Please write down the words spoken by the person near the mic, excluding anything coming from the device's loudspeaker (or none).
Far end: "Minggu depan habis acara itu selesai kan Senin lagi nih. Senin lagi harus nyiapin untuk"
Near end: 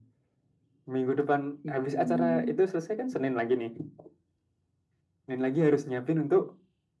Hmm.